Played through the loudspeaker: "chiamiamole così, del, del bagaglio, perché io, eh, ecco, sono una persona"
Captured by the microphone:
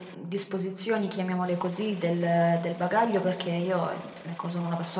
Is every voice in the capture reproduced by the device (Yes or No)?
Yes